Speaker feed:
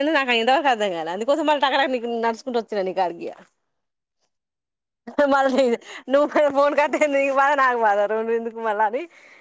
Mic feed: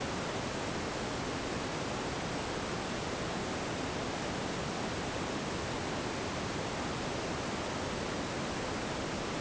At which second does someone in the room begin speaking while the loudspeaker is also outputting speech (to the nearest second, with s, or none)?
none